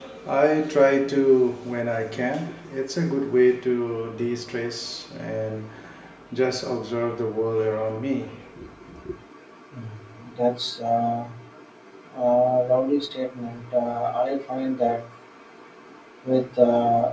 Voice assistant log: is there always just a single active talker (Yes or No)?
Yes